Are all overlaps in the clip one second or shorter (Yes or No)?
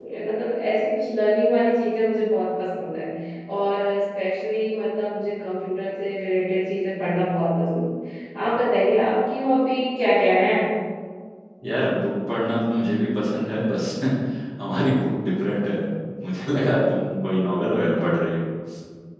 Yes